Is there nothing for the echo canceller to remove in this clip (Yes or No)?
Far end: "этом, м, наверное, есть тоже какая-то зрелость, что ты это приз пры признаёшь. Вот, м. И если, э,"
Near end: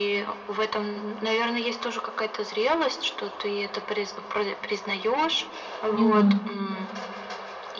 No